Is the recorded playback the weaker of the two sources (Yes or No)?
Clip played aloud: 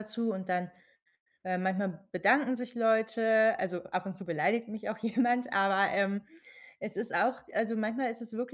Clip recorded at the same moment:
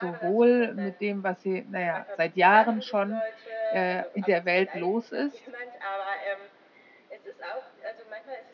Yes